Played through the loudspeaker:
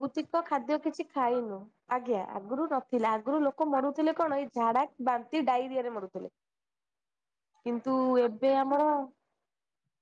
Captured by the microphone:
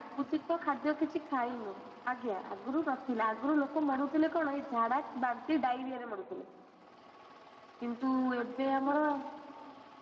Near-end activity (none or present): none